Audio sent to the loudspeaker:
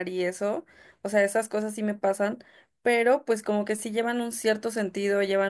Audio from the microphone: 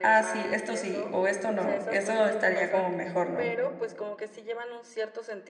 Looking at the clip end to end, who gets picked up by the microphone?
both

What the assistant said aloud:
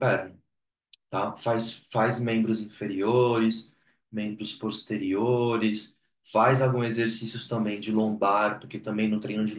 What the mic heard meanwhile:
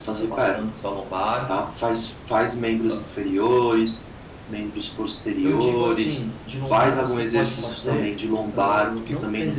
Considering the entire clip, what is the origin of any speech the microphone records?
both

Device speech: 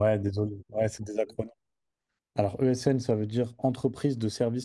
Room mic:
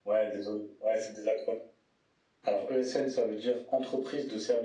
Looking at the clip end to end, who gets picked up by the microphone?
echo only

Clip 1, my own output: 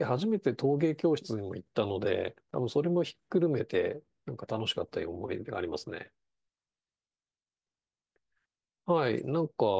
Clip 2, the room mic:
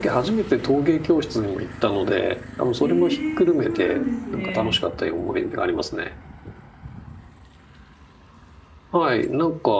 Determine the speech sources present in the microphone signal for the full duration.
both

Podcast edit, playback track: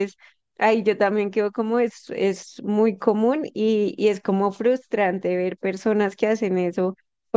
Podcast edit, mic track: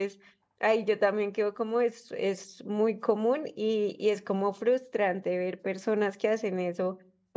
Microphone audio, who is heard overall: echo only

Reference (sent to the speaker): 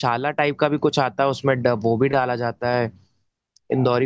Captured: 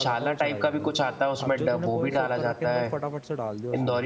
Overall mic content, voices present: both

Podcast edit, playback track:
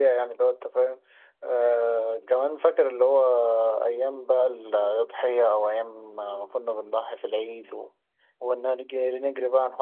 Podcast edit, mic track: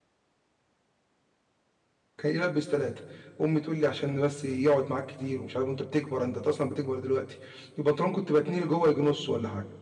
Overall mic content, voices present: user only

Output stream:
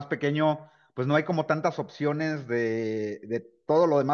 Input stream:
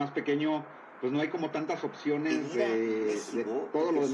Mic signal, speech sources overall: both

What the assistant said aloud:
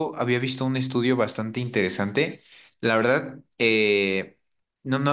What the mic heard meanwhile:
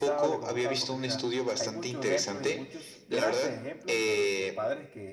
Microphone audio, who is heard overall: both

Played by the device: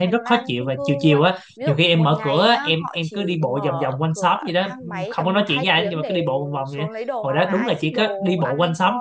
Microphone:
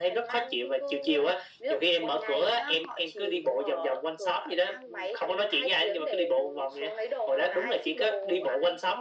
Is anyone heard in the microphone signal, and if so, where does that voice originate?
echo only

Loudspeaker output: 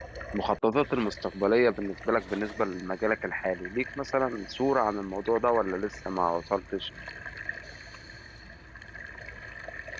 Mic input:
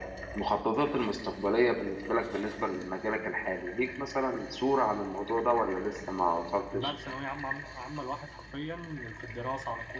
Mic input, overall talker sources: both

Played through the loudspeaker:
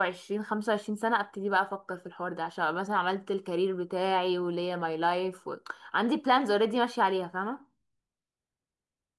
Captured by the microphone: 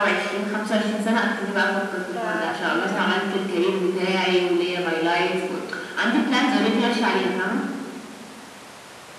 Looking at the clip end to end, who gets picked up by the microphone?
both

